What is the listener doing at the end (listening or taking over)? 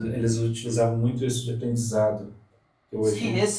taking over